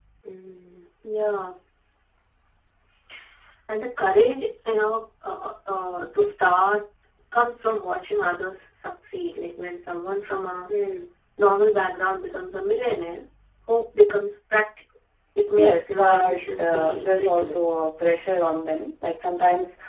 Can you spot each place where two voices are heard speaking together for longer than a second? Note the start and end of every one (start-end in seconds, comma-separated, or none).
15.6-17.6